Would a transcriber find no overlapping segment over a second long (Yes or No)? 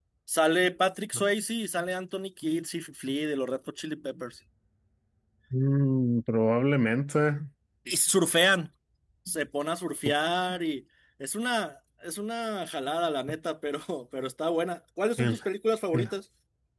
Yes